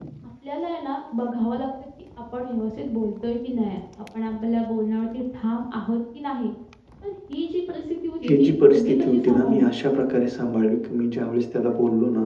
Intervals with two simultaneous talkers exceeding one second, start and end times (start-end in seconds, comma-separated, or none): 8.3-9.7